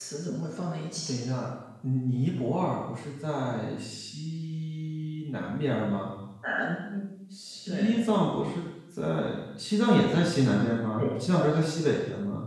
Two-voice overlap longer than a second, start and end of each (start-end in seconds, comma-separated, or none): none